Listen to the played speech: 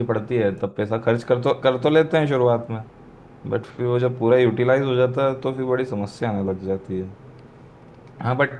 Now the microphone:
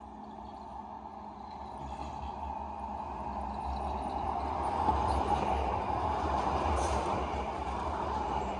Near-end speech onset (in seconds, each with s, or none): none